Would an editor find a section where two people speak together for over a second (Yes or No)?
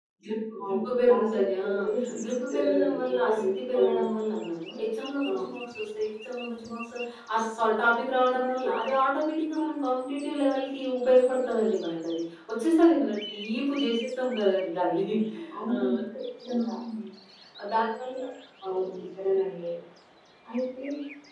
Yes